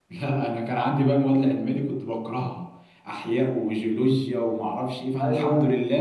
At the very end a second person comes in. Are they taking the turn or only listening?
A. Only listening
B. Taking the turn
A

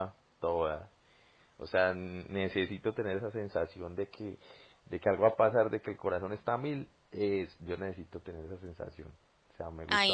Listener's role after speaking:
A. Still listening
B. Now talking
B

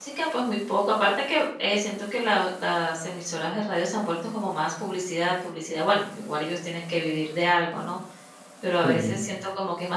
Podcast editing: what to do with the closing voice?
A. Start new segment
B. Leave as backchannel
B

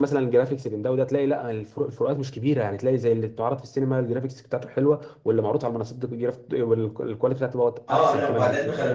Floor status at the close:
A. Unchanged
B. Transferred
B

